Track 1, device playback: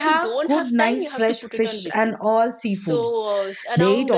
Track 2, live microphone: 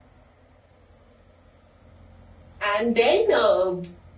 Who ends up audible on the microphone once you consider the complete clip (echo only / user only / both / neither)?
user only